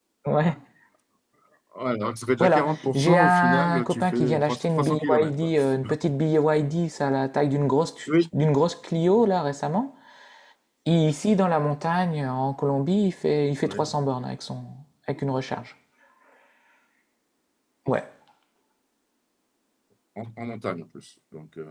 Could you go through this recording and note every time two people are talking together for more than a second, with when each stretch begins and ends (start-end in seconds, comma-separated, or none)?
2.4-5.5